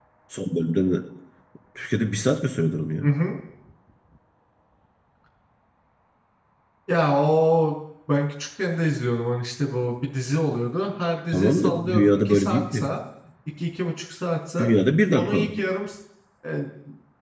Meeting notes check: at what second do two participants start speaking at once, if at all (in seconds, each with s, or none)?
11.3 s